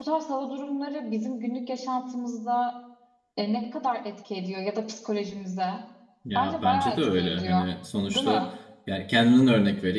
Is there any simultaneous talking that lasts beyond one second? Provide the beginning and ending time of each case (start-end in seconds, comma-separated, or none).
6.3-7.6